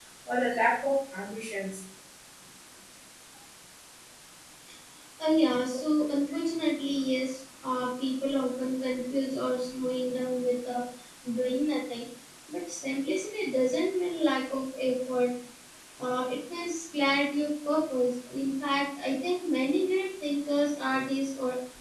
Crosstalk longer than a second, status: none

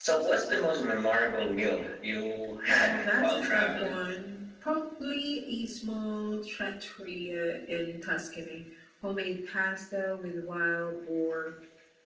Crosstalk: present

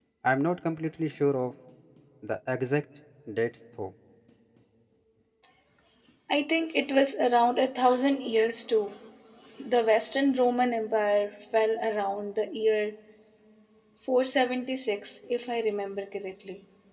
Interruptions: none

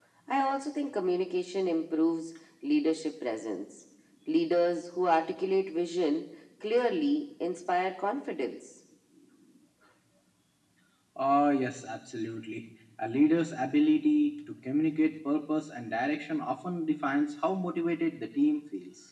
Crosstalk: none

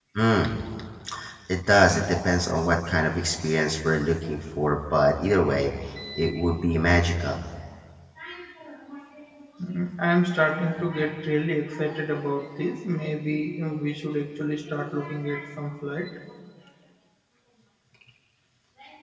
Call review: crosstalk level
none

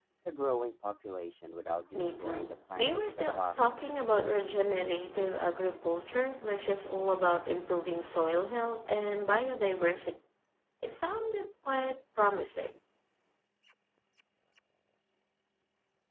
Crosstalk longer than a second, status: present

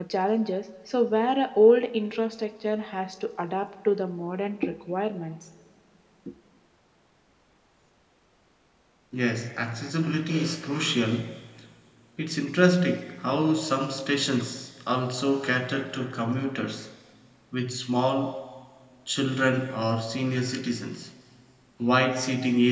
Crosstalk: none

